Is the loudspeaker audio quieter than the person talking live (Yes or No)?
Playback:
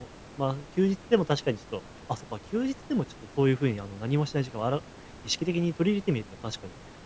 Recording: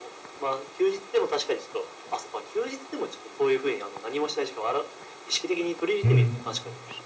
Yes